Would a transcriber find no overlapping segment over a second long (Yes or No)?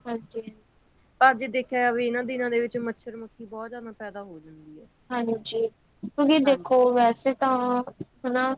Yes